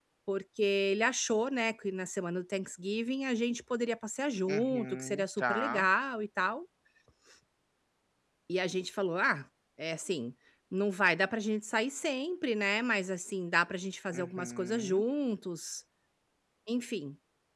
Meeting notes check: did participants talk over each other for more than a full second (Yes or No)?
Yes